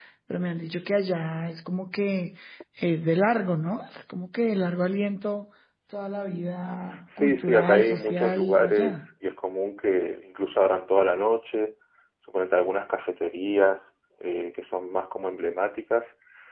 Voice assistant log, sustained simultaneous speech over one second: present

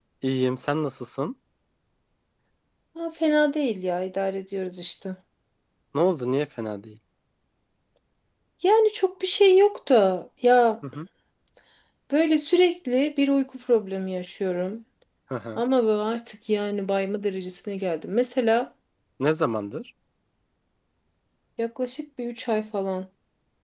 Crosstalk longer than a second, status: none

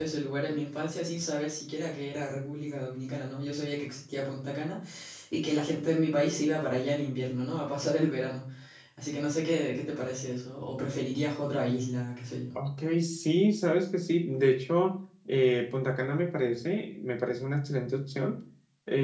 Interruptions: none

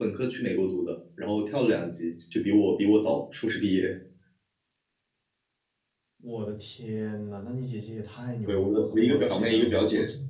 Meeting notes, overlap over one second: present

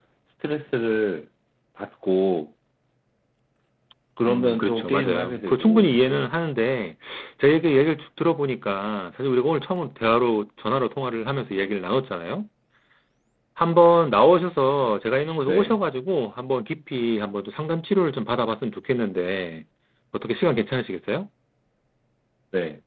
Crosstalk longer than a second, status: present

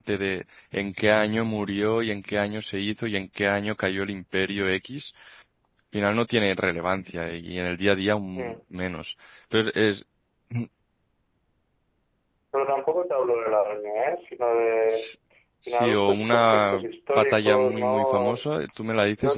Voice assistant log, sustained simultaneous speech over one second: present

